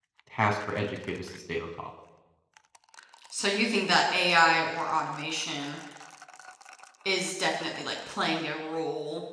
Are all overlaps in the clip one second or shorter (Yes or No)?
Yes